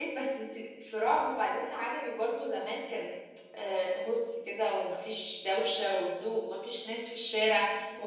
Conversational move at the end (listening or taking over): listening